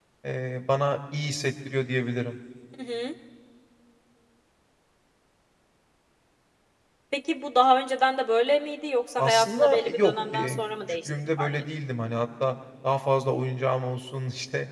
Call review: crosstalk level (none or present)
present